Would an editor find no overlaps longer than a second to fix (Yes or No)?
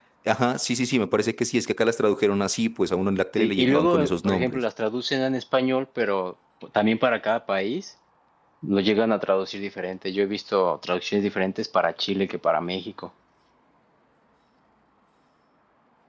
No